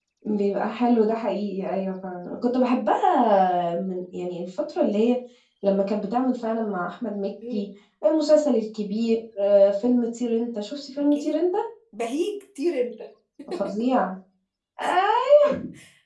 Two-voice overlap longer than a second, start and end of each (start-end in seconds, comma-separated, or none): none